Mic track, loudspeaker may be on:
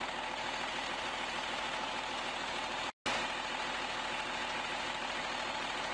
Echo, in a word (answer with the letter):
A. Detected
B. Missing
B